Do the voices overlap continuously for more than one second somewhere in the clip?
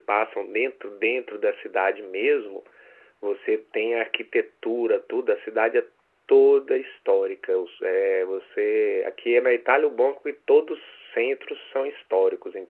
No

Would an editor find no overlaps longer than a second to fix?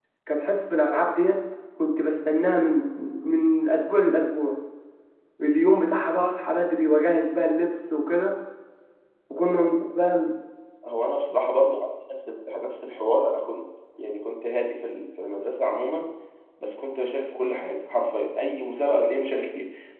Yes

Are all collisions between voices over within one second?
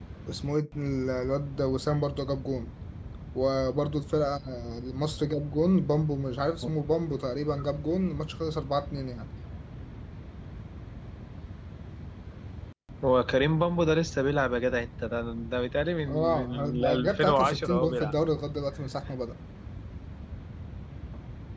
No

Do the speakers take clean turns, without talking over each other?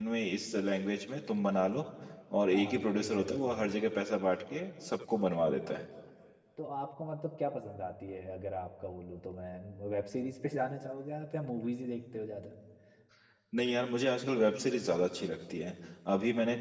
No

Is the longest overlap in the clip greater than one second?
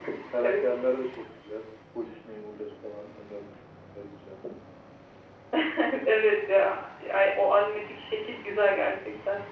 No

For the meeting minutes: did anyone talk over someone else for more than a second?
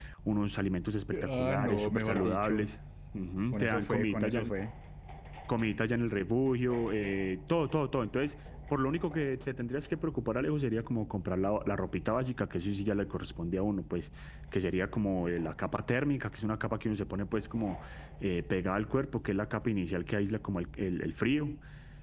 Yes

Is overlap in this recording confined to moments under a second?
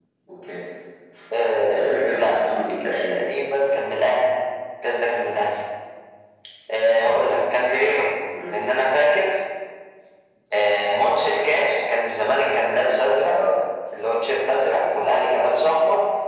No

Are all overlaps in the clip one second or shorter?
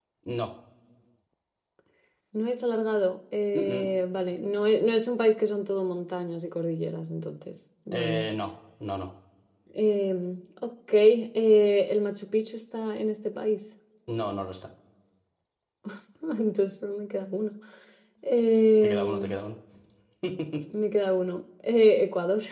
Yes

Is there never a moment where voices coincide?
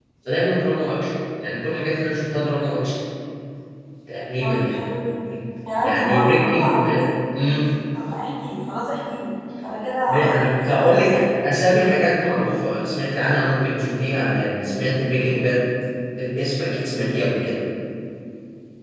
No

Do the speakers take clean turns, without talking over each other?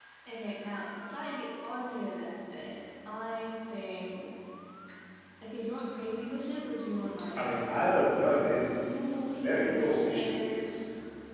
No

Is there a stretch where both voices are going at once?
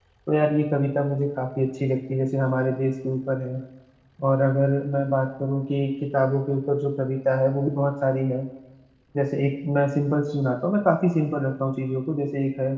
No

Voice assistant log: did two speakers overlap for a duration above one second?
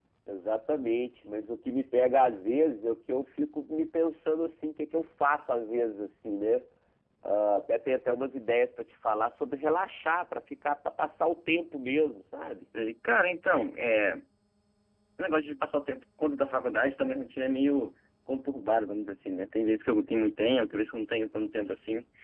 No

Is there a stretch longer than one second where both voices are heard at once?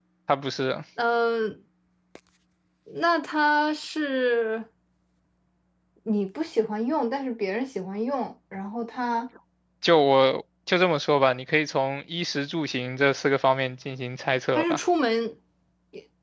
No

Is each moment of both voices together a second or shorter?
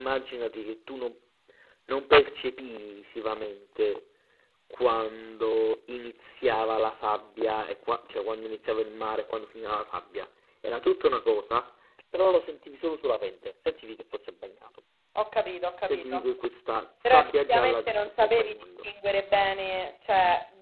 No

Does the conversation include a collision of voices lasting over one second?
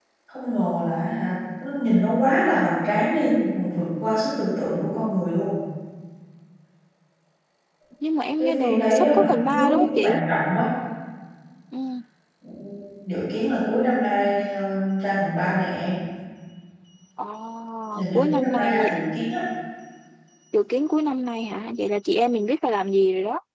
Yes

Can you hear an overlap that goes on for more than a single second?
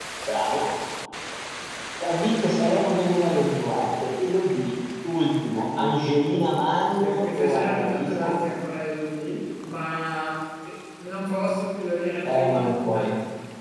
Yes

